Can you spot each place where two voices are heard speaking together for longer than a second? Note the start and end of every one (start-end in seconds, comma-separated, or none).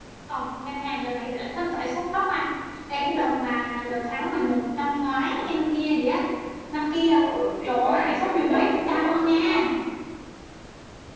7.7-9.3